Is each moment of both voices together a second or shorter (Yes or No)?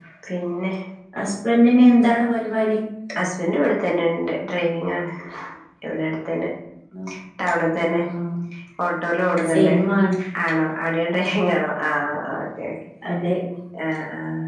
Yes